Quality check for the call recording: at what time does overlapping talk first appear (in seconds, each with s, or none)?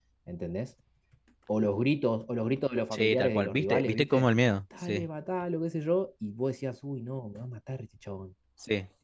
2.9 s